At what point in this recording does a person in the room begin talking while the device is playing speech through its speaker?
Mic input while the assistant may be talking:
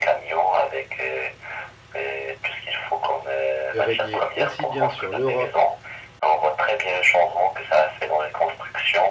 3.7 s

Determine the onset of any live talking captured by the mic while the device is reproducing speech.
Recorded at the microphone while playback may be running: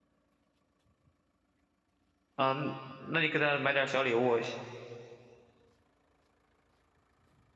2.4 s

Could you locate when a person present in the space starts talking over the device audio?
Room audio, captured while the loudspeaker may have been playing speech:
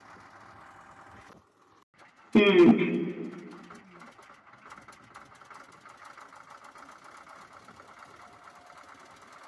2.3 s

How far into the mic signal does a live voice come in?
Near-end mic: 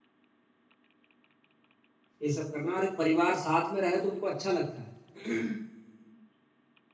2.2 s

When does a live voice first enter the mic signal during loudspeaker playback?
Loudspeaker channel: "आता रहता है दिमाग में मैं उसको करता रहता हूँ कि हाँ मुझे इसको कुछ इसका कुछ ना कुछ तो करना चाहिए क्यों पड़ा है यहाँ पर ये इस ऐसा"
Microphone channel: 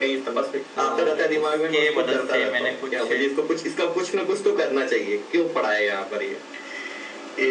0.8 s

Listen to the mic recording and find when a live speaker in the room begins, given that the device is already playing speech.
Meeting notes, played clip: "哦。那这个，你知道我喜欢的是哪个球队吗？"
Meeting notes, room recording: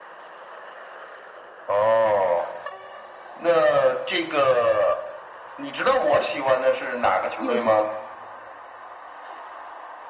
7.3 s

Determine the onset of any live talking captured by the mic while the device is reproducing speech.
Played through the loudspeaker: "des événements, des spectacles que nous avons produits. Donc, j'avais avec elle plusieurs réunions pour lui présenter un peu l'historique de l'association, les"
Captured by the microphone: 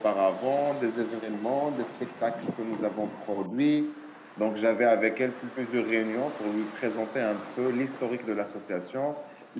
none

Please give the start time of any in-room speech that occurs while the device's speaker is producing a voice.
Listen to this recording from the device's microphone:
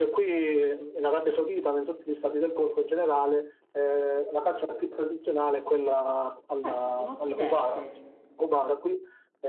6.6 s

